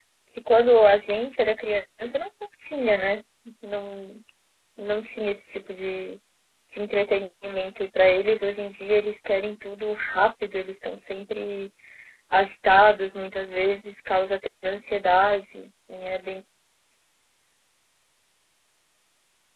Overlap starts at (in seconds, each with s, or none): none